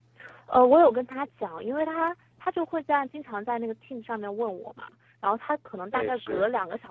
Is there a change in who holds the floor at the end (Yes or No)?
No